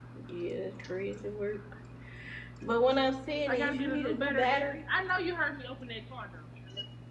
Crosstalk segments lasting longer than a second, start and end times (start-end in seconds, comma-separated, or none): 3.5-4.8